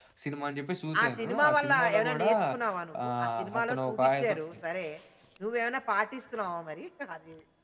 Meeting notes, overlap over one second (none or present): present